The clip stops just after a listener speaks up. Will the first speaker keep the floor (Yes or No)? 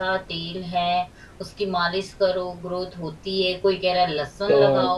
No